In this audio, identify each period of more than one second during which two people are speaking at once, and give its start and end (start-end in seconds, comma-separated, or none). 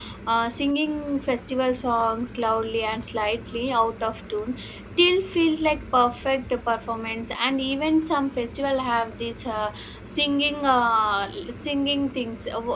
none